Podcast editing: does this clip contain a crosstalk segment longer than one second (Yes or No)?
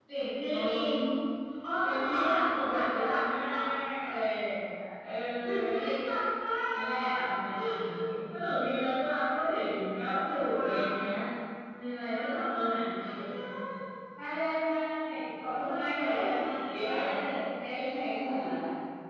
Yes